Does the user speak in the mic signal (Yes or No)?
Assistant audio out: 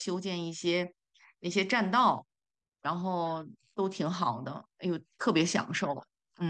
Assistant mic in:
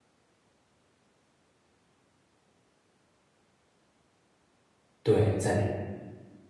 Yes